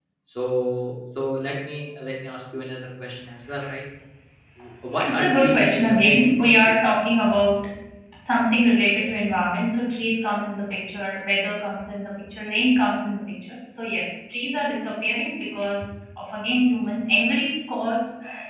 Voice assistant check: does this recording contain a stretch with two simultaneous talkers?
Yes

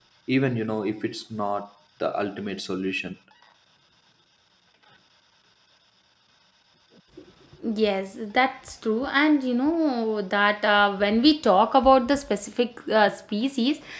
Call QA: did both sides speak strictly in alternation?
Yes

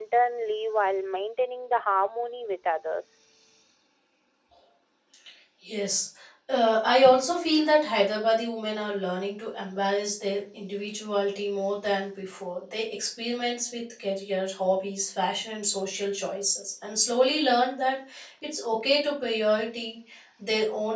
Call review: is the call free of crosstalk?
Yes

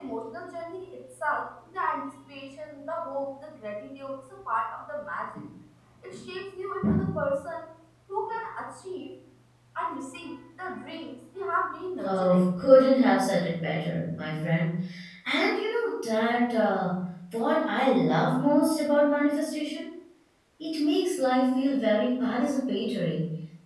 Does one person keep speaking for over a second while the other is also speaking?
No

